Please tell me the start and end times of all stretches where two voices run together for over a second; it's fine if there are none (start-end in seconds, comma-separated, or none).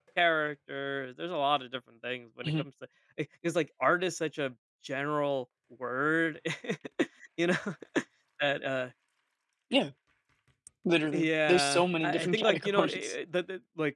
11.1-13.1